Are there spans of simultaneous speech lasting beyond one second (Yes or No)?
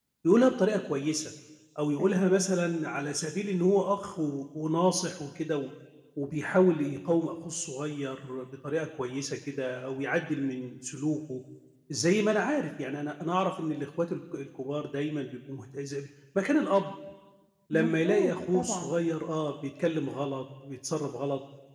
Yes